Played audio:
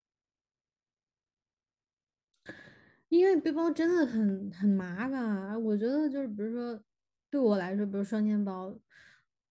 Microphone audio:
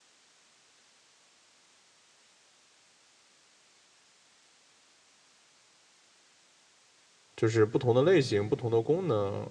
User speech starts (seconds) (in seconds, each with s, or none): 7.4 s